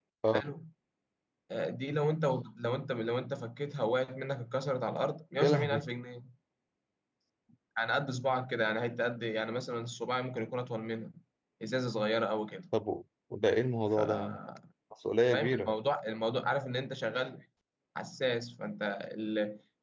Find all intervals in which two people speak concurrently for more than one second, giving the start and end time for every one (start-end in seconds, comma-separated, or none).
none